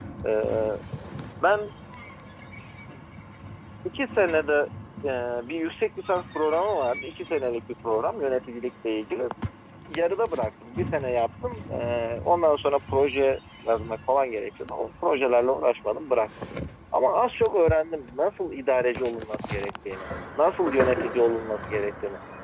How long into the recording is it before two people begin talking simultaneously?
none

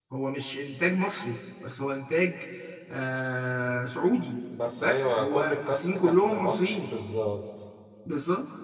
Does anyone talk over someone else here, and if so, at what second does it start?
4.8 s

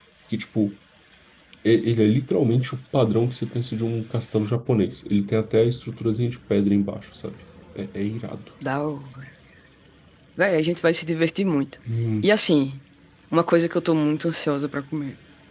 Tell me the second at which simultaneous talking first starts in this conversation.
none

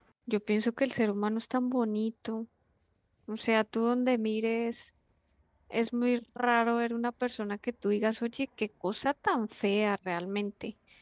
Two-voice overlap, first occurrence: none

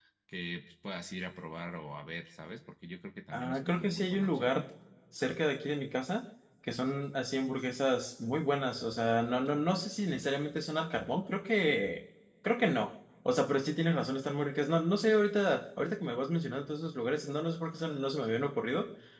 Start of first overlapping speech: 3.3 s

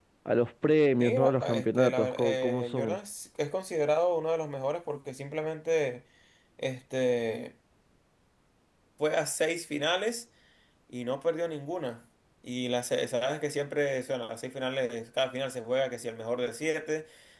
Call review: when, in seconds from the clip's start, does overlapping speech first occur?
1.0 s

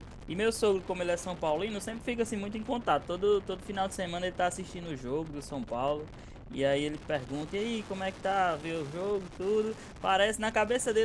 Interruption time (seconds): none

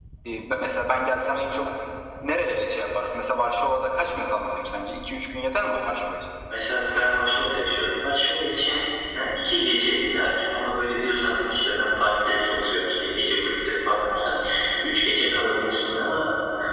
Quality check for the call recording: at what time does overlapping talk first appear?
none

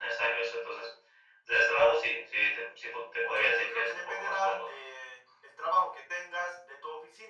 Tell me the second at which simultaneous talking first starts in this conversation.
3.2 s

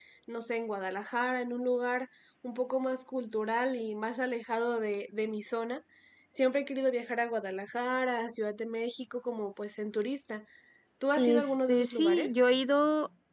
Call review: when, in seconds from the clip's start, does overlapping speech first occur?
11.2 s

